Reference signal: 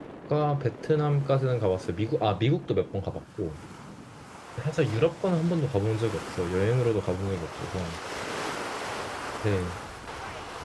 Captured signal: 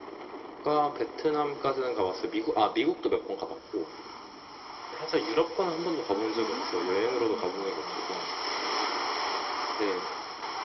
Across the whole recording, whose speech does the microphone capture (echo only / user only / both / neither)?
both